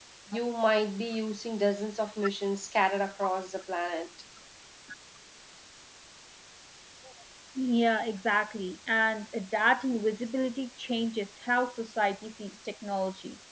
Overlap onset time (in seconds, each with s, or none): none